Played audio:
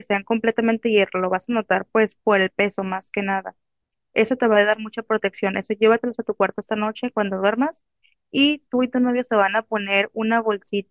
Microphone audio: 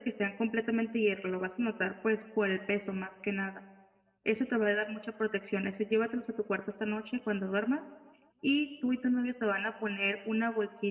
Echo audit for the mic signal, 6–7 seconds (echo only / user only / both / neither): echo only